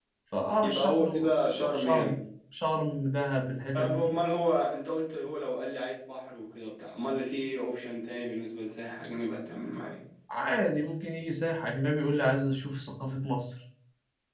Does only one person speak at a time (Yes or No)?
No